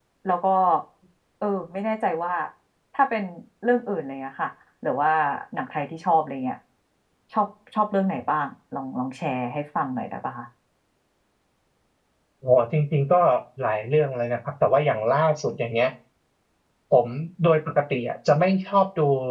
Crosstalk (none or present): none